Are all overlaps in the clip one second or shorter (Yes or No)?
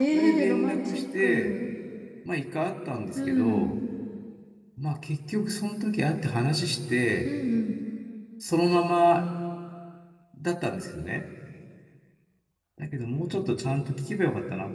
No